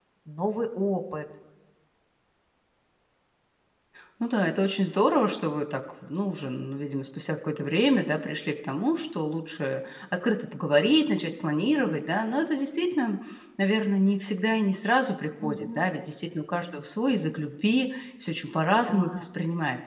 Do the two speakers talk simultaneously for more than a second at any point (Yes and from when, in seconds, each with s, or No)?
No